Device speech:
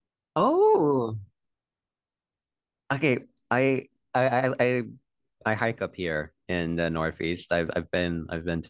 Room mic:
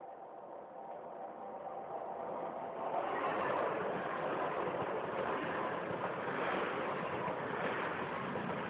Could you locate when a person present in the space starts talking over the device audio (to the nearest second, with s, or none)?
none